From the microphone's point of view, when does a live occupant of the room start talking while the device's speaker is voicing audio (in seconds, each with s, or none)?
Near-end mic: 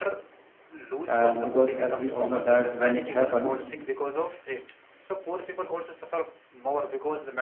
1.1 s